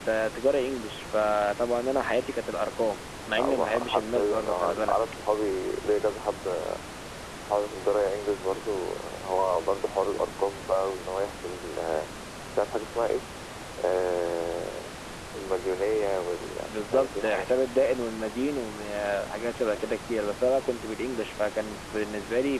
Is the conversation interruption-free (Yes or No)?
No